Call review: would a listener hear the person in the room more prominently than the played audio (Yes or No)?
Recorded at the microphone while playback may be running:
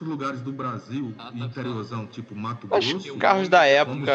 Yes